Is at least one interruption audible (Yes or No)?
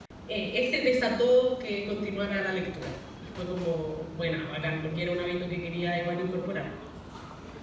No